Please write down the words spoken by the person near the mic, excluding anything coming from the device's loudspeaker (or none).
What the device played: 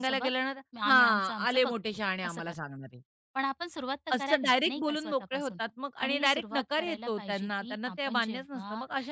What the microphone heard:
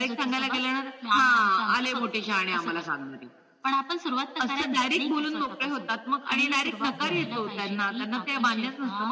हो ना,